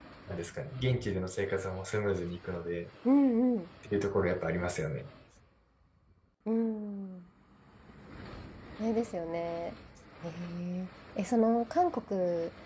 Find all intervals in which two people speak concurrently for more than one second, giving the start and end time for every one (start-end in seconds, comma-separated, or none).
none